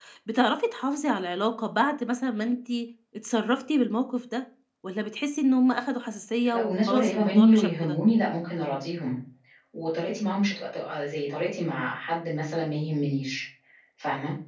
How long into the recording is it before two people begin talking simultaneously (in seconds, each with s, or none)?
6.4 s